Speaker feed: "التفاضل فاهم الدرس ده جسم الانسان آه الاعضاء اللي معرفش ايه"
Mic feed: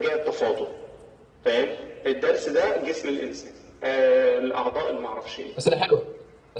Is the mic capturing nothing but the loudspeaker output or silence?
No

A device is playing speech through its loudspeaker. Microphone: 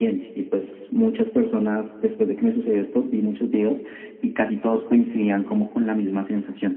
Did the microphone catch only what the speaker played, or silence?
Yes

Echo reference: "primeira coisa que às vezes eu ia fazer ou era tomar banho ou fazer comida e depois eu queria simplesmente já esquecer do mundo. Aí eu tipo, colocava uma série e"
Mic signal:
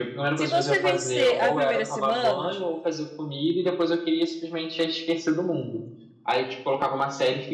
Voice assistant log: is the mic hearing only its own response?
No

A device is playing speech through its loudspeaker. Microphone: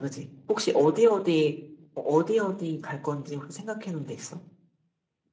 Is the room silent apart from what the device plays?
Yes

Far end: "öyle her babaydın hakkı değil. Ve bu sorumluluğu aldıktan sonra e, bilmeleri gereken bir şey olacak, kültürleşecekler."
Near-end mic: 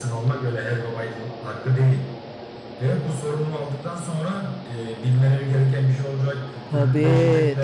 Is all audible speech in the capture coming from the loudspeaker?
No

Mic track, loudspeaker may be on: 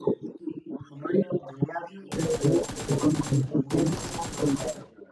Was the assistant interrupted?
No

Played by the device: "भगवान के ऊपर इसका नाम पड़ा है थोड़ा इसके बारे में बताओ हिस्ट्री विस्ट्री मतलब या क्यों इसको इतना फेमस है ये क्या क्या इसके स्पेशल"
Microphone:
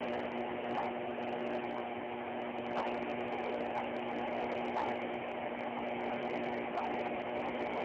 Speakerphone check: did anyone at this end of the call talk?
No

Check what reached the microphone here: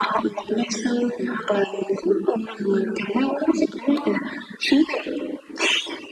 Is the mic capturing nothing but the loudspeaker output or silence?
Yes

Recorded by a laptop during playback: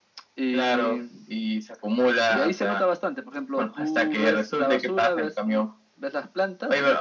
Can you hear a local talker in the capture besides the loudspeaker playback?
No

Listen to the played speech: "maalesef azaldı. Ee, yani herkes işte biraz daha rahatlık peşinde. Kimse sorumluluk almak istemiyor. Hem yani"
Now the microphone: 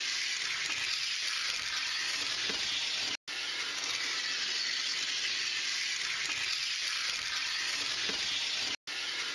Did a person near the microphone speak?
No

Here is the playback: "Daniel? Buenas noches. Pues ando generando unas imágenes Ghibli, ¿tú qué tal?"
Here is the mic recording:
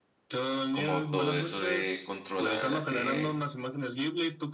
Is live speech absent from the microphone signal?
No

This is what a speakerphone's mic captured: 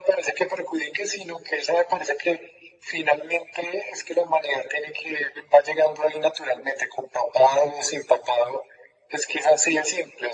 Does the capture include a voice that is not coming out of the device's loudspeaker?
No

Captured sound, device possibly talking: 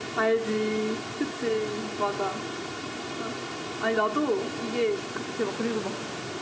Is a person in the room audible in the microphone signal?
No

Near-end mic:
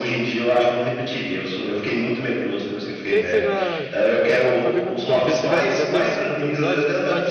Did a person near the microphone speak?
Yes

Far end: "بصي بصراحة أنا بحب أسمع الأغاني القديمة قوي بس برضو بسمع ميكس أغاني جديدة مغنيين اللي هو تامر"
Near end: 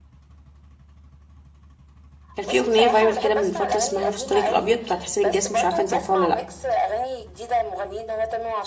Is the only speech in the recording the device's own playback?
No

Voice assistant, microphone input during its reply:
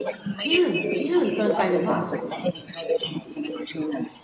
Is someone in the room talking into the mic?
Yes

